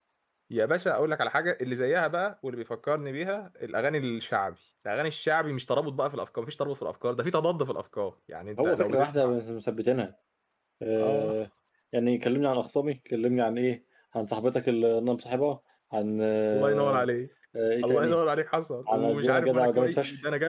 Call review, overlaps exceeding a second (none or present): present